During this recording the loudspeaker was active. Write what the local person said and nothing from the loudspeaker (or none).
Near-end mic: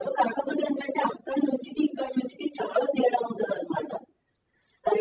none